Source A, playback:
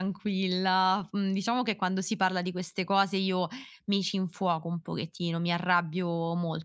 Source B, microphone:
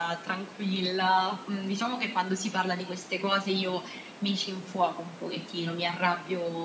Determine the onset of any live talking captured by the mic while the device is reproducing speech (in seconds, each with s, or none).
none